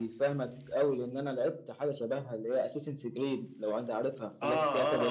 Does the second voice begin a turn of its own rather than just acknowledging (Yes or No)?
Yes